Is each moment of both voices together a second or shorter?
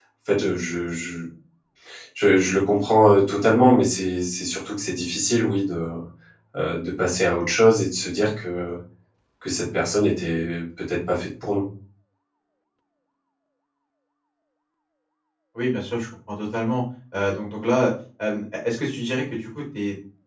Yes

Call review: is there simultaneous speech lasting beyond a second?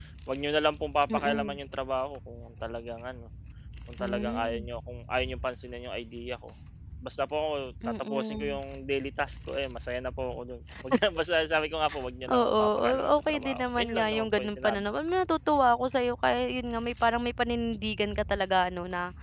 Yes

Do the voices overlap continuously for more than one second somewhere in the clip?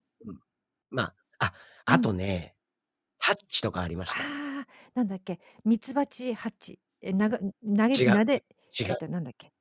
No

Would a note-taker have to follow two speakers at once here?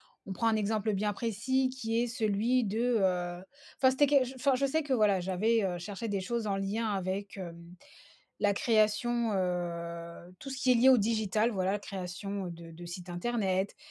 No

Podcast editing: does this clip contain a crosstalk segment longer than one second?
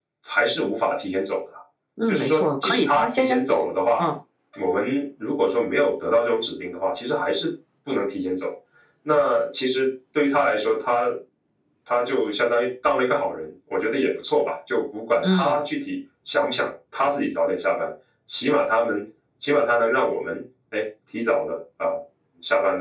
Yes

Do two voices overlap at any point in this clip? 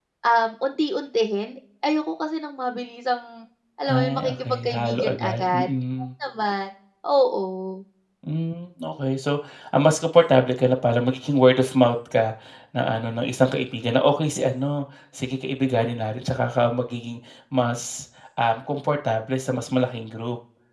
Yes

